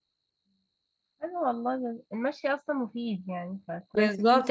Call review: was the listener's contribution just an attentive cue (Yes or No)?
No